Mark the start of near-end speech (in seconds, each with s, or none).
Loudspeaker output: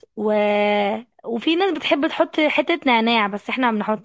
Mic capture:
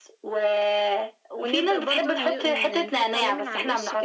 1.3 s